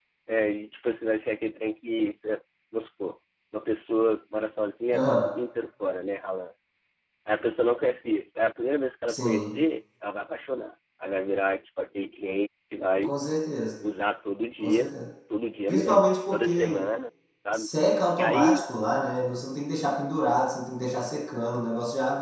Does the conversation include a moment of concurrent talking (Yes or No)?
Yes